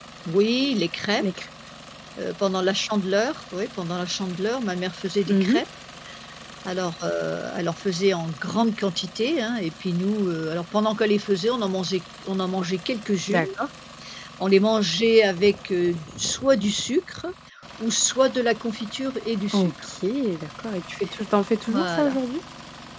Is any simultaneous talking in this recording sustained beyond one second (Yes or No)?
No